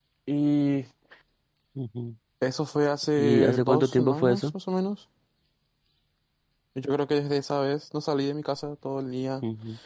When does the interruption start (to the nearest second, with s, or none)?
3 s